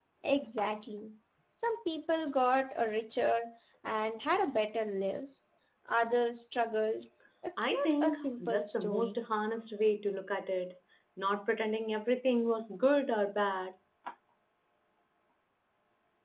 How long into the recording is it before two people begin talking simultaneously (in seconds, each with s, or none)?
7.6 s